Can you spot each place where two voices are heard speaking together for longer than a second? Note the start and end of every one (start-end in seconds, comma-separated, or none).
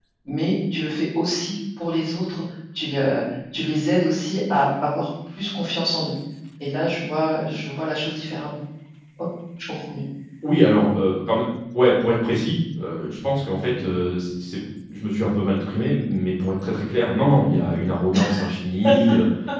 none